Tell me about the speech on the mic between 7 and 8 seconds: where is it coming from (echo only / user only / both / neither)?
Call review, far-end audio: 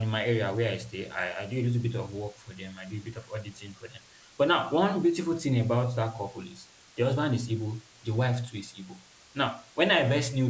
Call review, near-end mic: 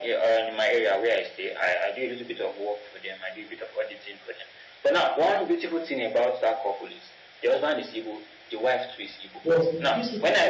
echo only